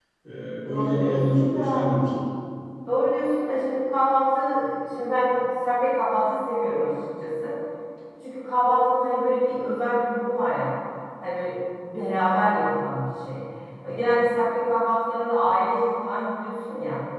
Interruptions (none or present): present